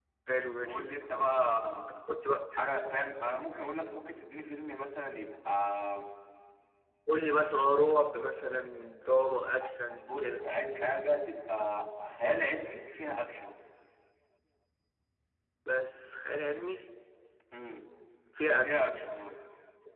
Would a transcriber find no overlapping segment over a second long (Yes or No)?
Yes